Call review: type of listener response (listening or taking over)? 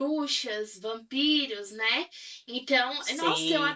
listening